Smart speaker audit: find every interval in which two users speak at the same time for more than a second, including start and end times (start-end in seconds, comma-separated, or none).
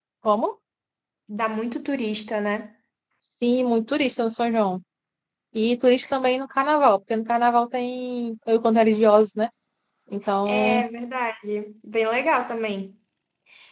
none